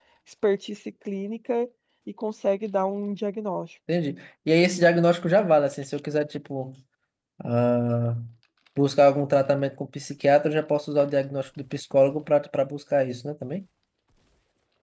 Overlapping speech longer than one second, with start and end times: none

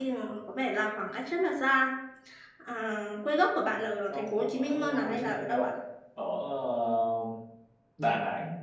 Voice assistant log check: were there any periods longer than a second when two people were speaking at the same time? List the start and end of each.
4.1-5.7

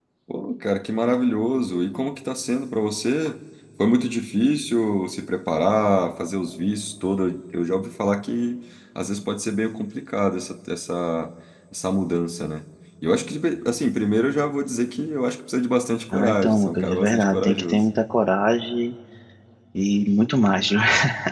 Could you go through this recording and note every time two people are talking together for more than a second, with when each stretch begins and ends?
16.1-17.9

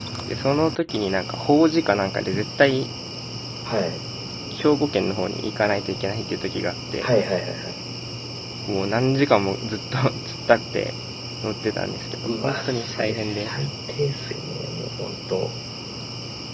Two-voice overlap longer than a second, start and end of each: 12.3-13.5

